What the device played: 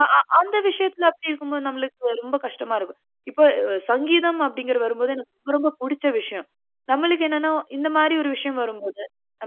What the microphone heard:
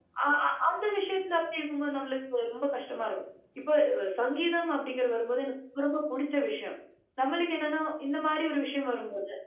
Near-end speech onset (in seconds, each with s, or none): none